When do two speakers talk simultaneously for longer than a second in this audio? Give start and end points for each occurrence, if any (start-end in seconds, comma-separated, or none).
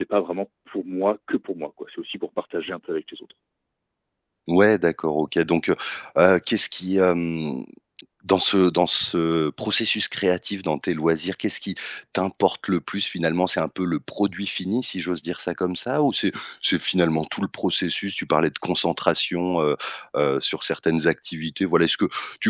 none